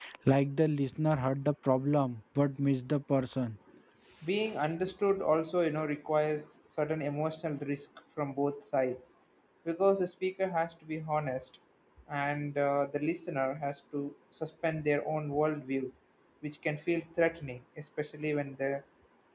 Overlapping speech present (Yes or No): No